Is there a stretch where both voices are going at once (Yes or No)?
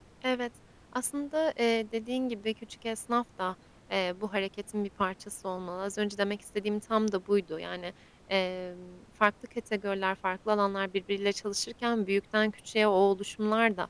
No